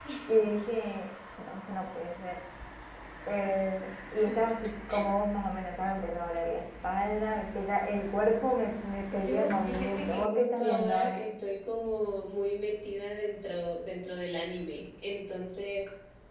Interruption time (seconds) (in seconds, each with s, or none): 9.1 s